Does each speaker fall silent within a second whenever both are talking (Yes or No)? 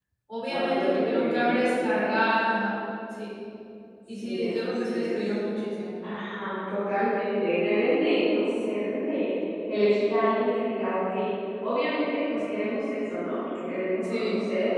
No